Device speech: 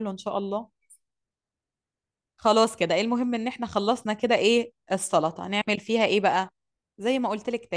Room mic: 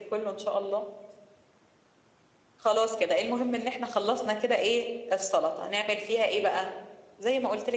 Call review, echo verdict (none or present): present